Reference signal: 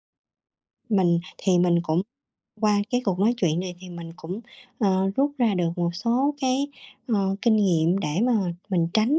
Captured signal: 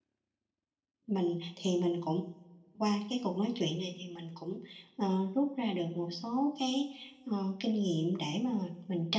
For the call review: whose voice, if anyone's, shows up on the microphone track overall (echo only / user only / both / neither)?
echo only